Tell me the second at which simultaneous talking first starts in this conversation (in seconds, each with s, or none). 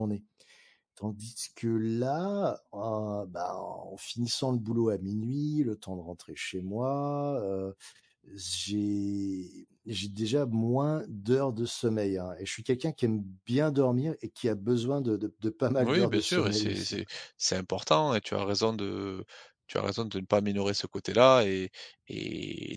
15.8 s